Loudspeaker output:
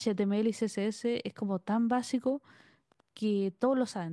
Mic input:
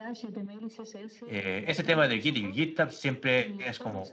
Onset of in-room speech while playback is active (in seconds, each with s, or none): 1.2 s